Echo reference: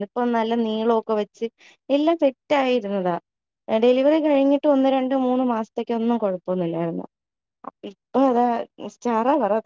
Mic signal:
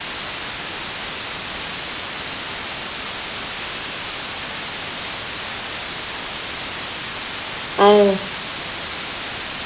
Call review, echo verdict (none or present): none